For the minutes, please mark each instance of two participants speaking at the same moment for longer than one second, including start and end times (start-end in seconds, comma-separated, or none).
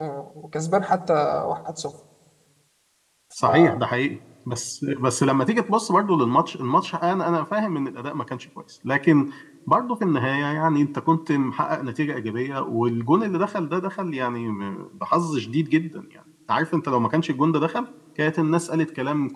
none